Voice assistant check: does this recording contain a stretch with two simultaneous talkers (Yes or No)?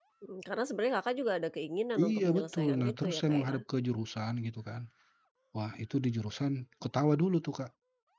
Yes